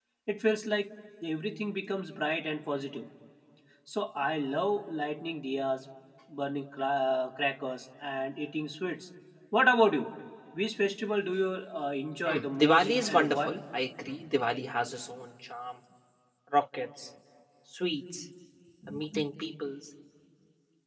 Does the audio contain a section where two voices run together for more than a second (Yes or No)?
Yes